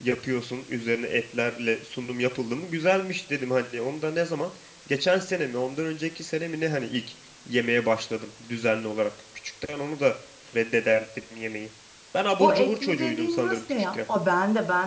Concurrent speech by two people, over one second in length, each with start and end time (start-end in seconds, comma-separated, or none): 12.4-14.0